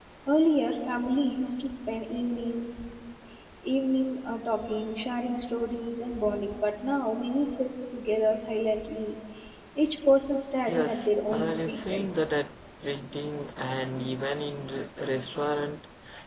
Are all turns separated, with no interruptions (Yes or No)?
No